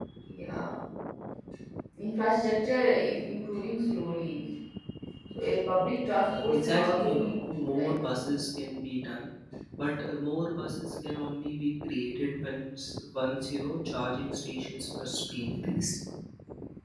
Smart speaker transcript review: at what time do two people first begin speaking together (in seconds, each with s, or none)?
6.3 s